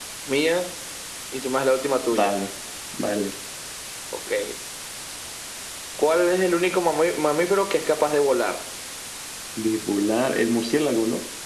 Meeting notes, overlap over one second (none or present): none